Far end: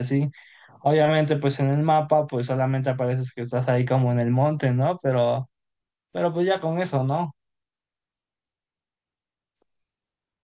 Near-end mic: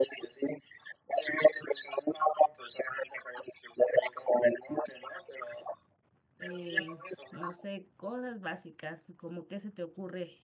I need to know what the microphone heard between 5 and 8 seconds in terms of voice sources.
both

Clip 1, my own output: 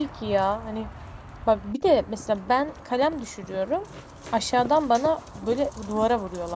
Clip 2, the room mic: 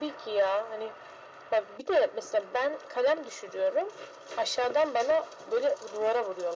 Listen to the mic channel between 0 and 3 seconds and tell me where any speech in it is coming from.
echo only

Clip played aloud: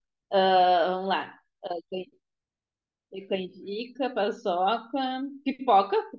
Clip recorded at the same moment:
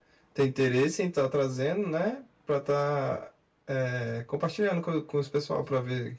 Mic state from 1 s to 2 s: user only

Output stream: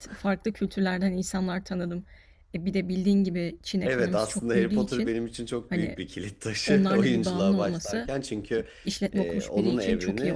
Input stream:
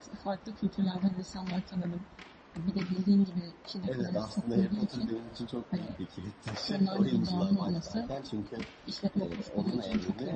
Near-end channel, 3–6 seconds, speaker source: echo only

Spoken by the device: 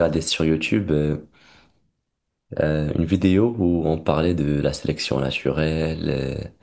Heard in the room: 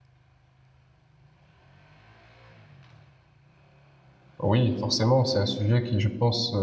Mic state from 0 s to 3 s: neither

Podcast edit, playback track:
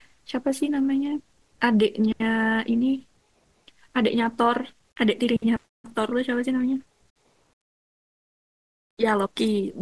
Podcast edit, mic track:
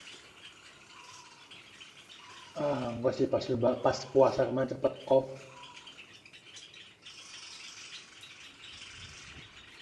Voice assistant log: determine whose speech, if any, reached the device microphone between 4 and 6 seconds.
user only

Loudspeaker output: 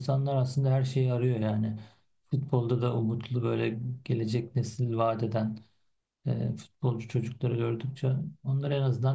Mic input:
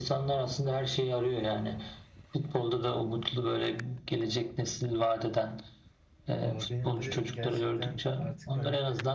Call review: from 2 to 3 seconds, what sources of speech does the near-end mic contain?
echo only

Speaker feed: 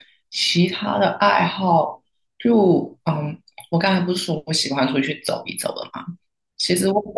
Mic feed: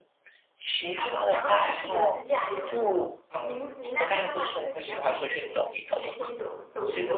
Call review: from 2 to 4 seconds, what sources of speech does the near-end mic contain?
both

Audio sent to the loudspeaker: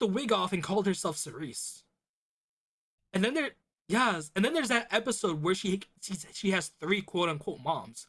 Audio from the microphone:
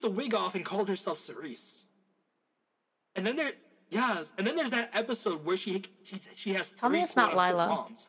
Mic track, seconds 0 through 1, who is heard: echo only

